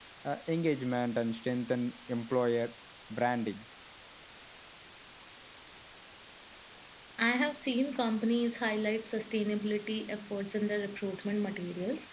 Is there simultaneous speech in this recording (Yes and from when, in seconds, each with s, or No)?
No